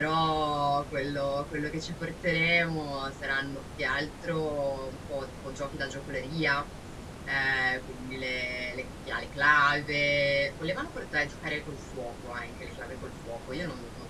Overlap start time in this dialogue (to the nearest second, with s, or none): none